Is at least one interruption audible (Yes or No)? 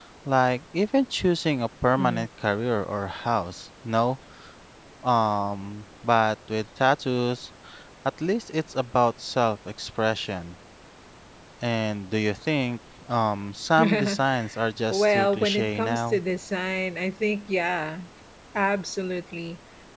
Yes